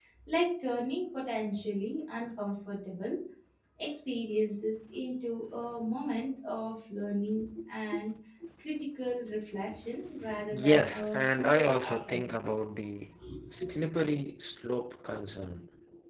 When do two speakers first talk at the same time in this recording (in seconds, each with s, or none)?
10.5 s